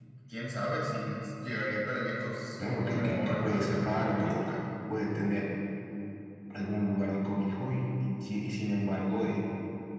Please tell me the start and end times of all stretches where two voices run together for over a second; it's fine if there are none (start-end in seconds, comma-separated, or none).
2.6-4.5